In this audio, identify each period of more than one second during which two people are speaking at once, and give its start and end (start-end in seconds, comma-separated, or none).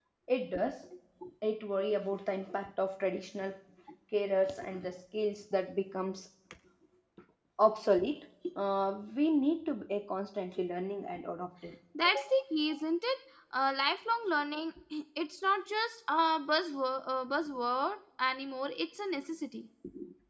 none